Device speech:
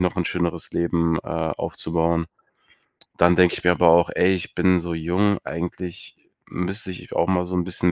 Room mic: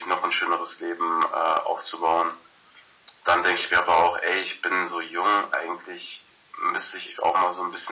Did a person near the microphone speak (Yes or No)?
No